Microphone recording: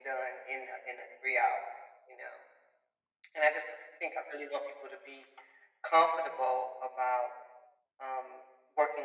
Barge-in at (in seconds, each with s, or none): none